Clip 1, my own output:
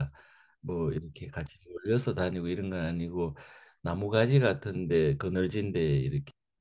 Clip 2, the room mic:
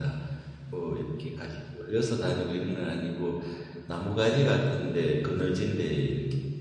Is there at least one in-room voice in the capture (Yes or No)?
No